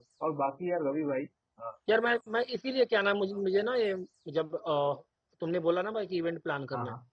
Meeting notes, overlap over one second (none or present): none